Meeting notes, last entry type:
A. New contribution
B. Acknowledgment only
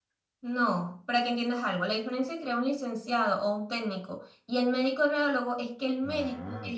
B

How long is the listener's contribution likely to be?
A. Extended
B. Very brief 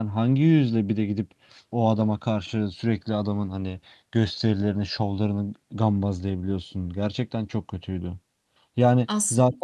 B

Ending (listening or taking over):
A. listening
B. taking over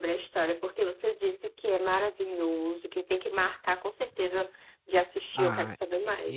B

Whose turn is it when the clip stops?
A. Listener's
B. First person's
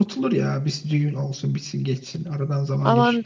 A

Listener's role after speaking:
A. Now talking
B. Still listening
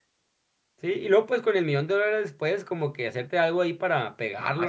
A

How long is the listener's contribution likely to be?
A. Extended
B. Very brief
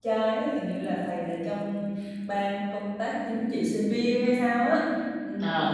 B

